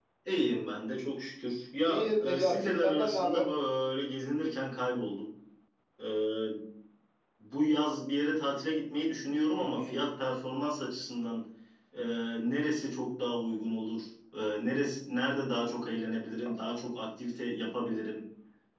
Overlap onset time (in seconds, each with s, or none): 1.8 s